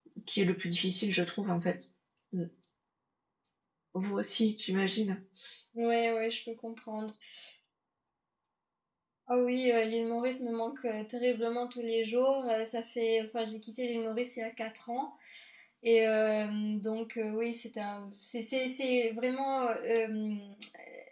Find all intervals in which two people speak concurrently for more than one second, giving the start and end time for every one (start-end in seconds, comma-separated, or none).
none